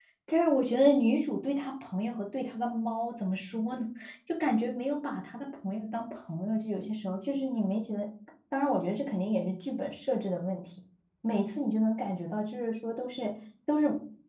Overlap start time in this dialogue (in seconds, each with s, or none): none